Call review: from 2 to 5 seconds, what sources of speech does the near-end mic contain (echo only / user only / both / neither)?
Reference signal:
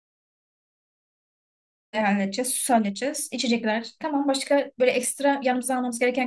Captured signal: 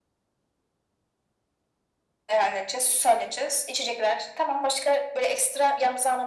echo only